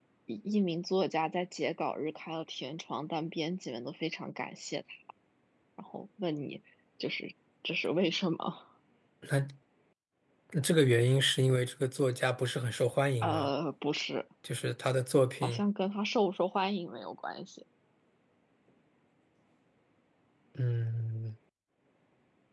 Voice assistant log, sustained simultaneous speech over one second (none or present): none